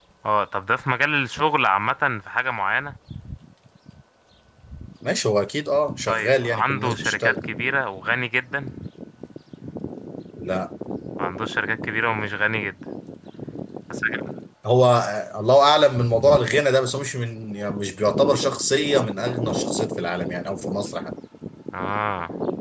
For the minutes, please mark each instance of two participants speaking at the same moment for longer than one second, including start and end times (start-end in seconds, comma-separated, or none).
6.1-7.3